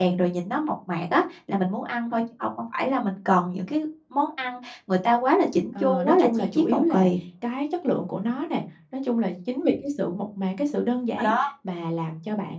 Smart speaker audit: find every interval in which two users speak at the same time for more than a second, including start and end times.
5.8-7.1

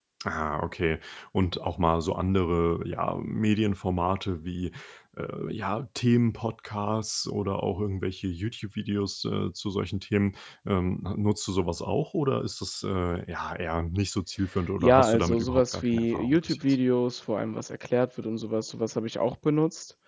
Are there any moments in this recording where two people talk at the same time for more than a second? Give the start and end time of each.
14.8-16.6

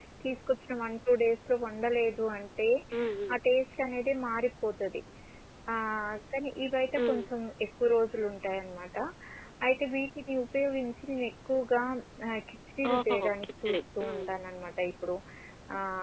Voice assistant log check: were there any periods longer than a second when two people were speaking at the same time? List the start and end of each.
12.9-14.3

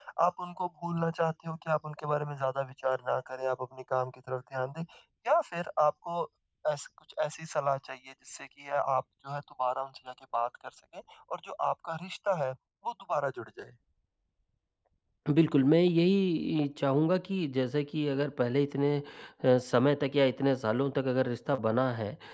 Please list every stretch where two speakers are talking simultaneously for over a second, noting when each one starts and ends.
none

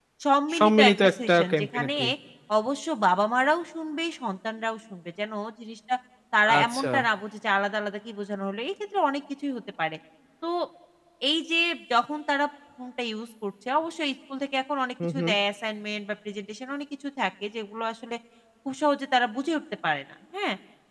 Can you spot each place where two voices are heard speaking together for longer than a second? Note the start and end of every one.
0.6-1.9

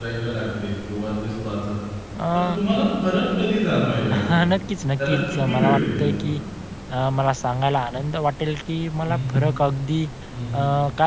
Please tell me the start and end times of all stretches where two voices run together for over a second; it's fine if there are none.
5.0-6.4

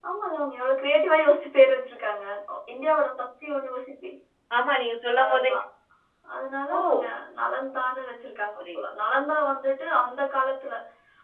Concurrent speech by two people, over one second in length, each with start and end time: none

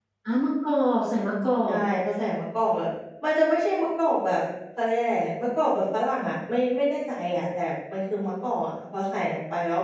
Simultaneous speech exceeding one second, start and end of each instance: none

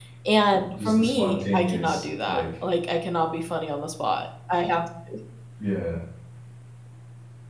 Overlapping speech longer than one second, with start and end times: 0.8-2.5

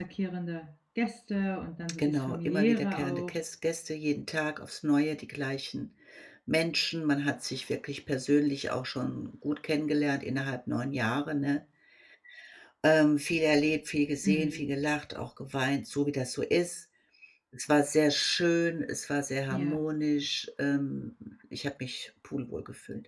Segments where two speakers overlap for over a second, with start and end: 2.0-3.3

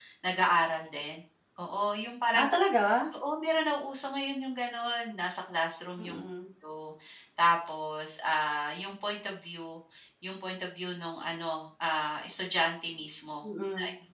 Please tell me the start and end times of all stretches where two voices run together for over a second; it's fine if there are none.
none

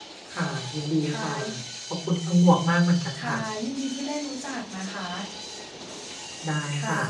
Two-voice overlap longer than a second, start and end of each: none

